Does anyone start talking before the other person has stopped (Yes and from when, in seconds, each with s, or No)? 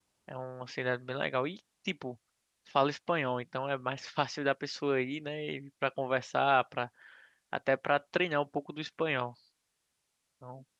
No